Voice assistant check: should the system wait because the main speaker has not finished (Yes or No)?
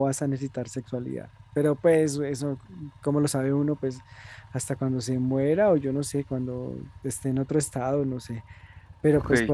Yes